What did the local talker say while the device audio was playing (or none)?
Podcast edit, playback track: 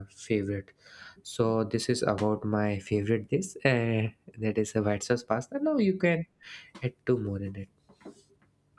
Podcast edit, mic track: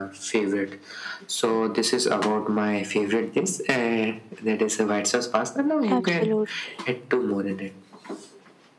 Absolutely.